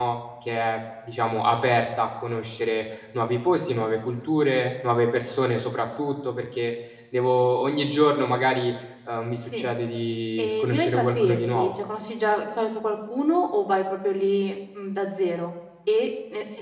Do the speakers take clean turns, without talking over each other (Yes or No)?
No